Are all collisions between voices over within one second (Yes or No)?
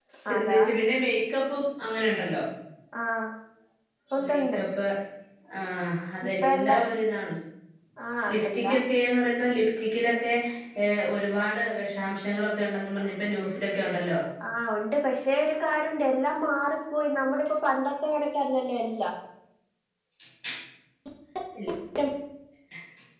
Yes